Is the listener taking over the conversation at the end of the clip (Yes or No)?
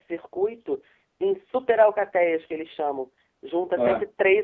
No